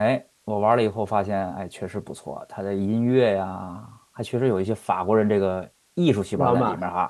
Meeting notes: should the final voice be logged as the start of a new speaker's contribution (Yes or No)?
No